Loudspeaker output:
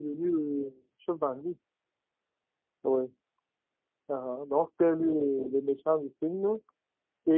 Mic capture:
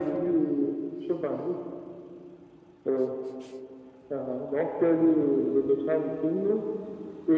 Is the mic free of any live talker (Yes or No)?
Yes